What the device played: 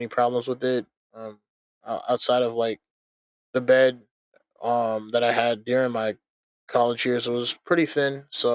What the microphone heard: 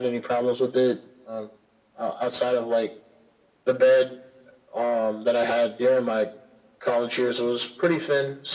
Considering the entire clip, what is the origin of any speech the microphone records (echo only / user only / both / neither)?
echo only